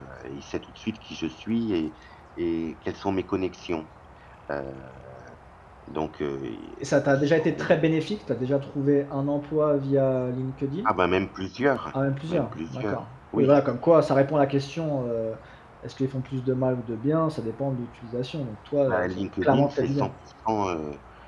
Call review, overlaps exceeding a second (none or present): present